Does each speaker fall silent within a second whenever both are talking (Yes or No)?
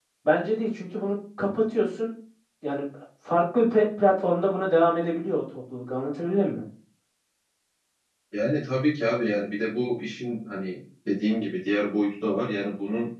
Yes